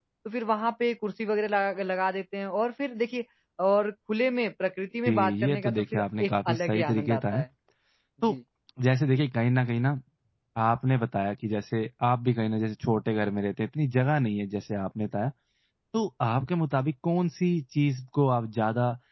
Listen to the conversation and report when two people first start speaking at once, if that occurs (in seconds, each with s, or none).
5.1 s